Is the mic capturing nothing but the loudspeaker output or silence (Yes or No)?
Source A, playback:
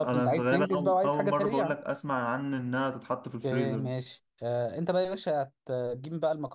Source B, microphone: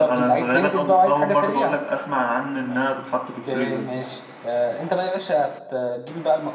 Yes